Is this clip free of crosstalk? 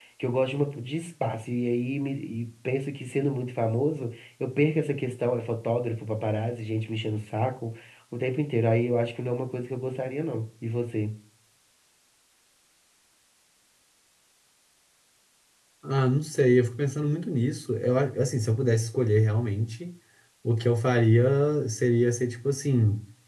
Yes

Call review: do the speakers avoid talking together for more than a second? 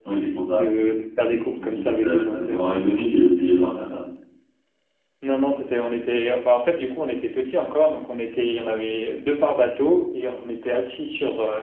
No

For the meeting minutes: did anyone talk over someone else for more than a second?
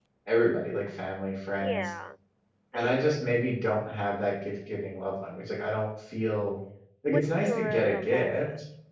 Yes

